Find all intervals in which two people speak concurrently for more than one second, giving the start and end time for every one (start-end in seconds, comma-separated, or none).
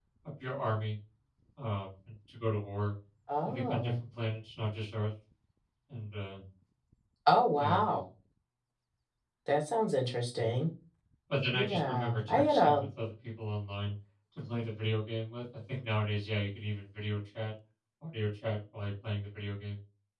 11.5-12.8